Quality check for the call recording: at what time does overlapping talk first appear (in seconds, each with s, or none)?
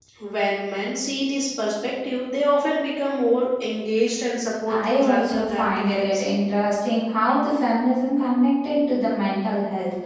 4.7 s